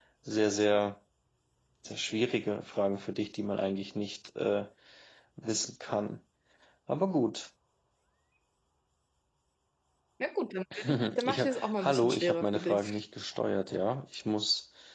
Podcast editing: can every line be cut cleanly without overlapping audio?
No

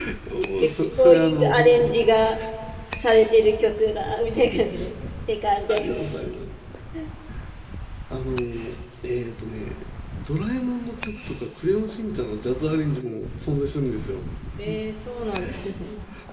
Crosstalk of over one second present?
Yes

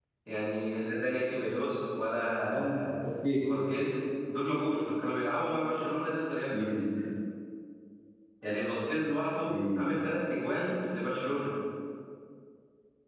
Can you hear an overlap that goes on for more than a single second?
No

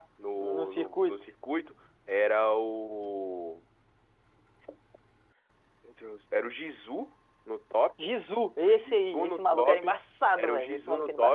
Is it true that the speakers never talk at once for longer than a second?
No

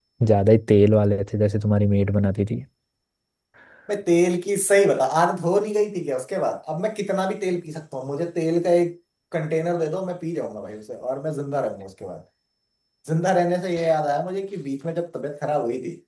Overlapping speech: No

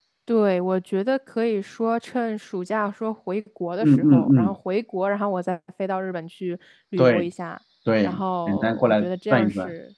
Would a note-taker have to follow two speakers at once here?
Yes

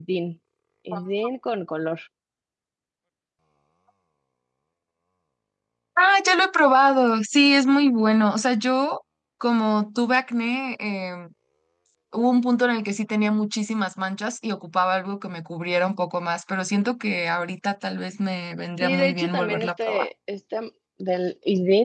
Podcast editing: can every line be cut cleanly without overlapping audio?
No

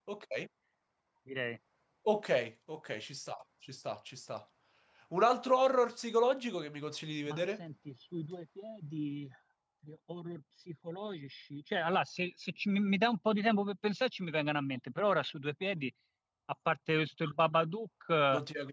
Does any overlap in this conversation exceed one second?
No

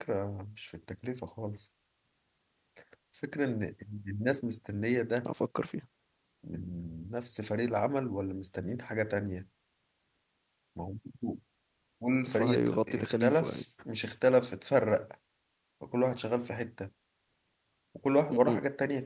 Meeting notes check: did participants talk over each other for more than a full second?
Yes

